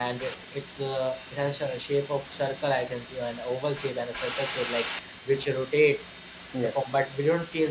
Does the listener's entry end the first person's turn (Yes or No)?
No